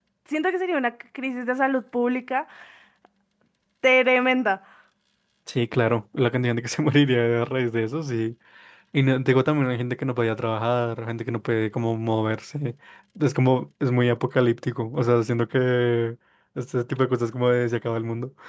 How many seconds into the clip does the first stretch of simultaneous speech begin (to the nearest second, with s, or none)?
none